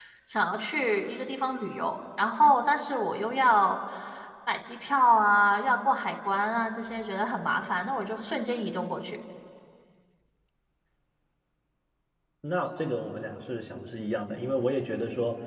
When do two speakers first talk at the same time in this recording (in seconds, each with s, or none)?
none